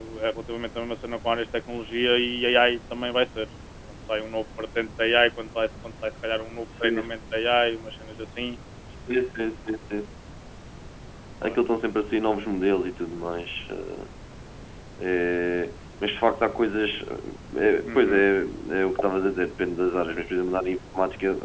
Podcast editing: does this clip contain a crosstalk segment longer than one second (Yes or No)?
No